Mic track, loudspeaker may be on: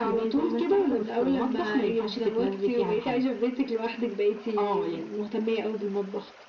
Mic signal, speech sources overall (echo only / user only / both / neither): echo only